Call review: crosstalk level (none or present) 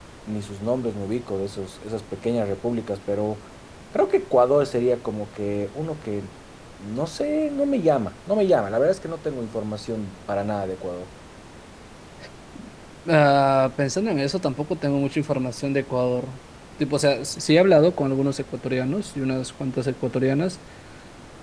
none